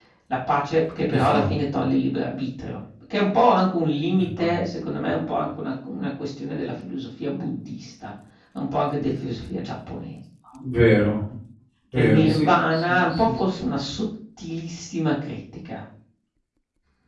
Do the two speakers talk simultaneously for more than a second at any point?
Yes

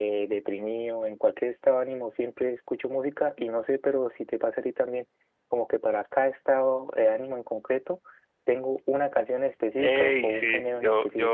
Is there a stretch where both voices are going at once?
Yes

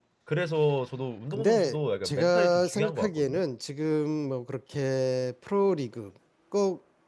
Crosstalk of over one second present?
Yes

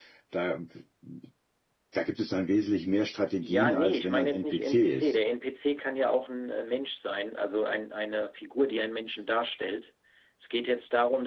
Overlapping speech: Yes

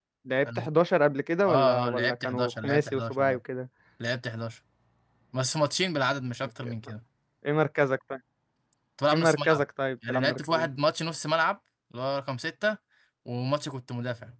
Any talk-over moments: Yes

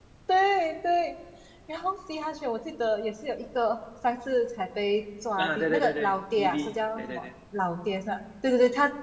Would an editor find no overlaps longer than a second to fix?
No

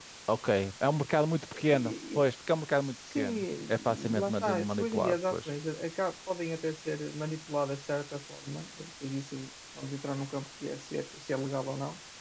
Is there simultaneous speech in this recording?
Yes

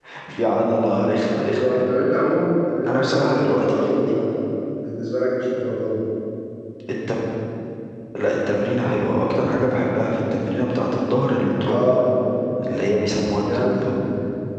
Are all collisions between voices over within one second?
No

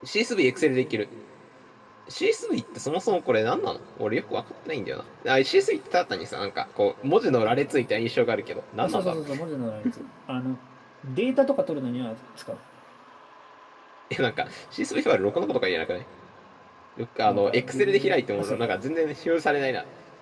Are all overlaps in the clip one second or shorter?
No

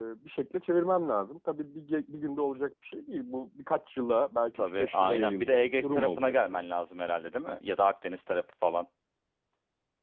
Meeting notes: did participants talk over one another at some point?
Yes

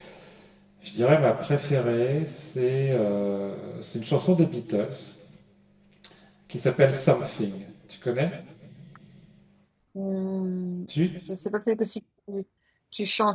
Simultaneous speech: No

